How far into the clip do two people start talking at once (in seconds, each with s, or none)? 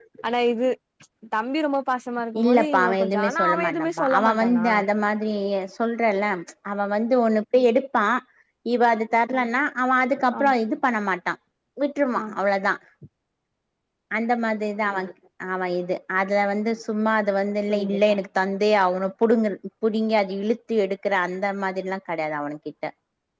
2.4 s